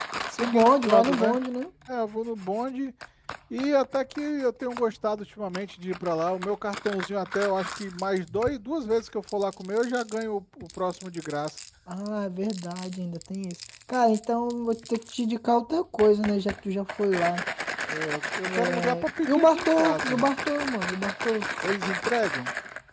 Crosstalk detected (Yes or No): Yes